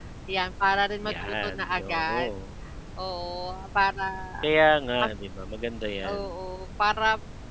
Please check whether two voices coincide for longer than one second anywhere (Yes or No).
Yes